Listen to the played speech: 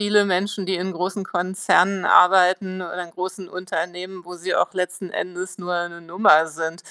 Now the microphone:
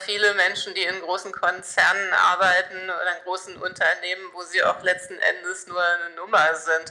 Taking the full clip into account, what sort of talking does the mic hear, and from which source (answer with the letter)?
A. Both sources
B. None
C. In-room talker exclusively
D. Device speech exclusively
D